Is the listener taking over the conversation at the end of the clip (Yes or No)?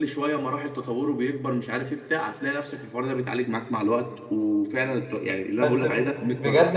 Yes